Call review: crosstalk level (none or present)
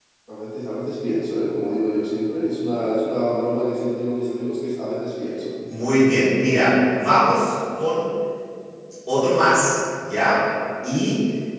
none